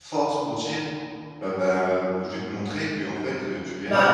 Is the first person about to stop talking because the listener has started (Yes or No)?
Yes